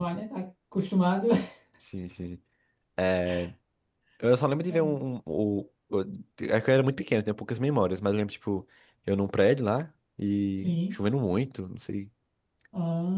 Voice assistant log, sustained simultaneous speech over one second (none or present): none